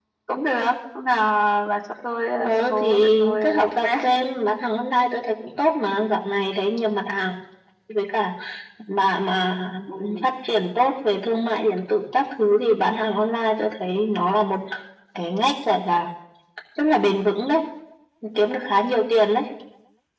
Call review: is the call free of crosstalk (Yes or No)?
No